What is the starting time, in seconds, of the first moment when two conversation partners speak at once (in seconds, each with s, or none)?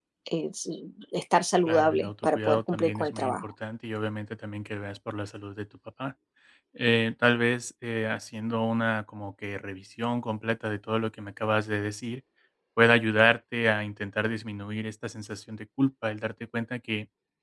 1.6 s